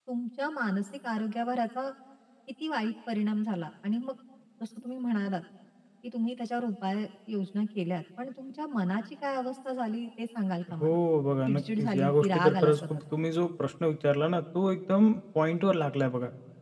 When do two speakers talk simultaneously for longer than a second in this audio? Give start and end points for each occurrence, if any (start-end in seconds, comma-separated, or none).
11.4-13.0